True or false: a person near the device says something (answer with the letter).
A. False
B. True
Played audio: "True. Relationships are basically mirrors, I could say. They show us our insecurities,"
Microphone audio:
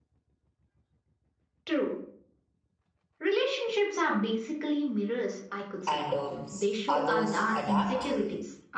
B